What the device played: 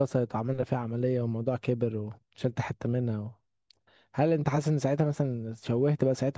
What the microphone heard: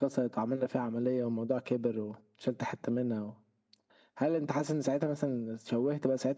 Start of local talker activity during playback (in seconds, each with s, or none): none